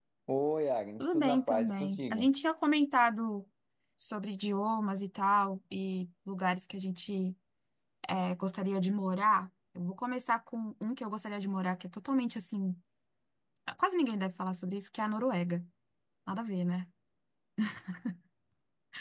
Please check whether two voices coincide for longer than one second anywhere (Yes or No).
Yes